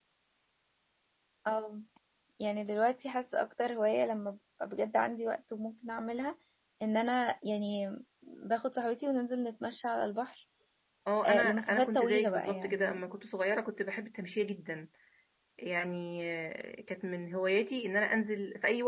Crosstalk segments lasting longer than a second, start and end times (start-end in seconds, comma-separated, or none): 11.2-12.9